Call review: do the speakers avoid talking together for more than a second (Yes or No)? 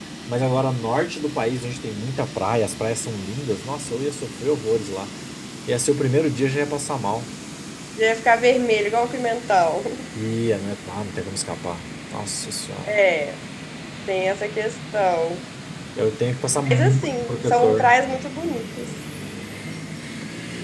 No